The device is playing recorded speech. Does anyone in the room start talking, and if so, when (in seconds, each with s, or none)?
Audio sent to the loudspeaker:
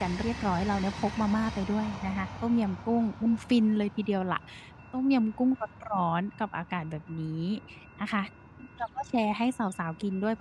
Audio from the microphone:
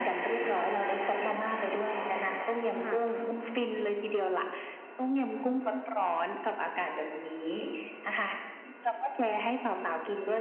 2.8 s